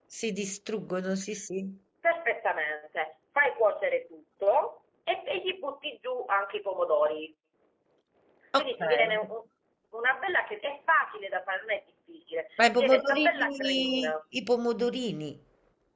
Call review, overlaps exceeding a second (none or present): present